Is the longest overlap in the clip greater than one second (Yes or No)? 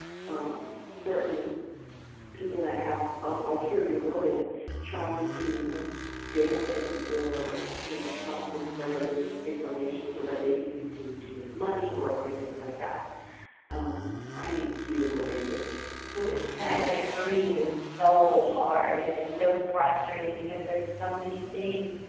No